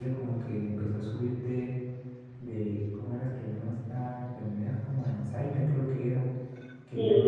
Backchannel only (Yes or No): No